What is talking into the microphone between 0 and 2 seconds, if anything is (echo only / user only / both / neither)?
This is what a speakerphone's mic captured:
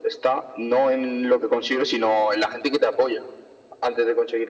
echo only